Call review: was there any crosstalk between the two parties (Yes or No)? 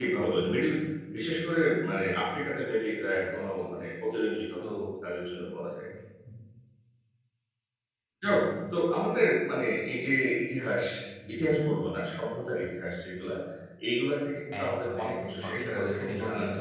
Yes